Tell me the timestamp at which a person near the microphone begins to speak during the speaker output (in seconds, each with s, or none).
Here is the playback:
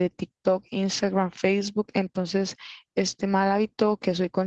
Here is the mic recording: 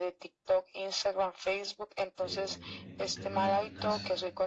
2.1 s